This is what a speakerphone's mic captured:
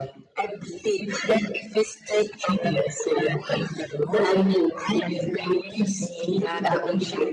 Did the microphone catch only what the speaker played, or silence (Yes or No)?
No